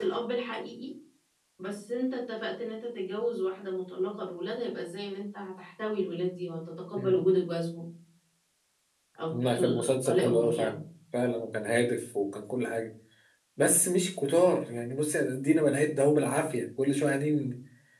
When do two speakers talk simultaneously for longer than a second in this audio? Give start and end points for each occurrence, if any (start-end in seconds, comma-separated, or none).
9.3-10.8